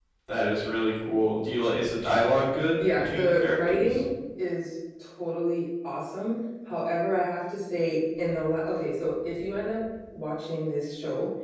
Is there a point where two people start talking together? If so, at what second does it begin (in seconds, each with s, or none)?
2.8 s